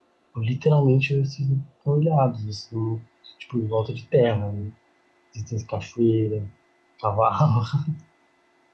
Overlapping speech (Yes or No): No